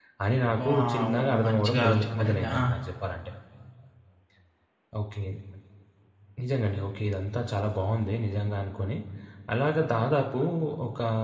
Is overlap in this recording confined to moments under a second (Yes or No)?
No